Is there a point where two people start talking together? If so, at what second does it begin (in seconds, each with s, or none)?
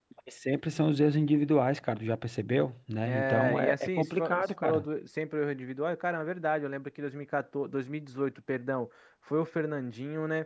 3.0 s